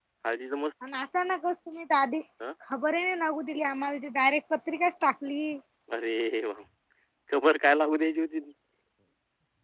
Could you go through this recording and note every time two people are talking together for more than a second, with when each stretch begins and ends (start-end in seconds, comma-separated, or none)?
none